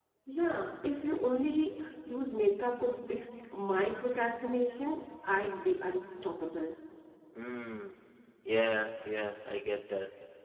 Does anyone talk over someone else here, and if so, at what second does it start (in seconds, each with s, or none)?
none